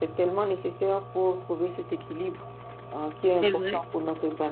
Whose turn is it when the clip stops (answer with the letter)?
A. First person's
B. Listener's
A